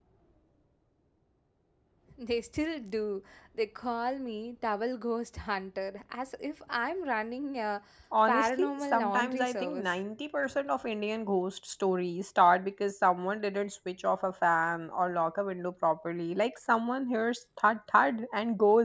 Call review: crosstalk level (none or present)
present